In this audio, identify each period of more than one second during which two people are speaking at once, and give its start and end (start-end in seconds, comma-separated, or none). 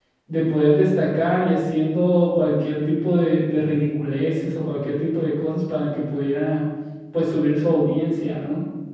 none